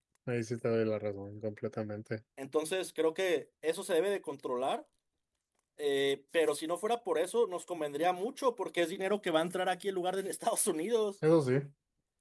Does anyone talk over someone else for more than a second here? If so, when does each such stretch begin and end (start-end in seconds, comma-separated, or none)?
none